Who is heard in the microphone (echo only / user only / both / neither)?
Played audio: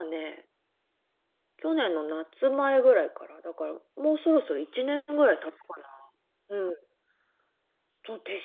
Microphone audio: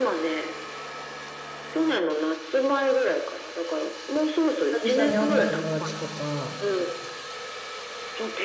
both